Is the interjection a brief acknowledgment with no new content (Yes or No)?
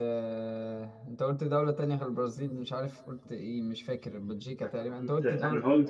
No